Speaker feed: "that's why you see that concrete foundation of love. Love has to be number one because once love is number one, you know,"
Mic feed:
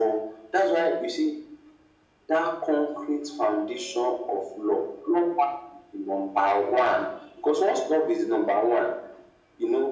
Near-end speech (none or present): none